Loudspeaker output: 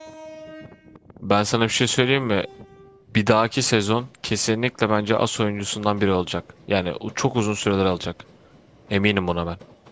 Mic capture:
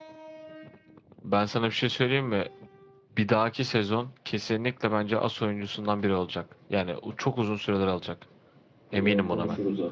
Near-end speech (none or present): present